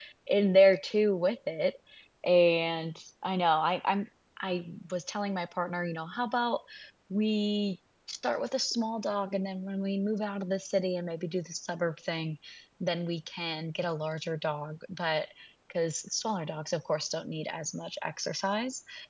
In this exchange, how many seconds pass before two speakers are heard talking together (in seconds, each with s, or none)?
none